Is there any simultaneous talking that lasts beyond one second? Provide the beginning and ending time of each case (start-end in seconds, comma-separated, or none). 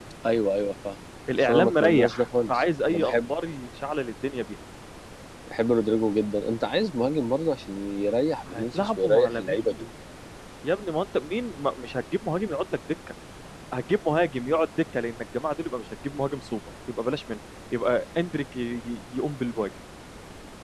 1.4-3.3, 8.5-9.7